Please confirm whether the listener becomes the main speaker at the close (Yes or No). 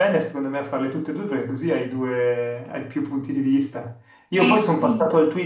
No